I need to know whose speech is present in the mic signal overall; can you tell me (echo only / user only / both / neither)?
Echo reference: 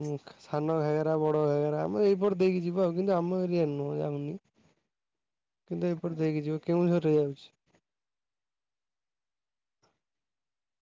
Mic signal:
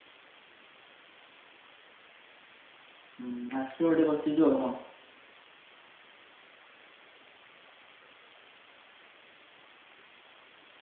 user only